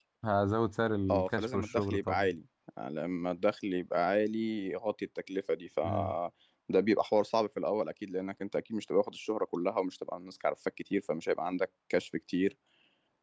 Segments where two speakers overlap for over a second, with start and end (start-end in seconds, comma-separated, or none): 1.1-2.3